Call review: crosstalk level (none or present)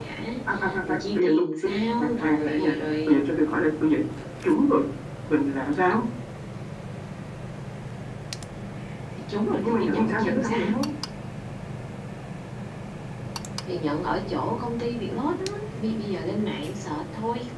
present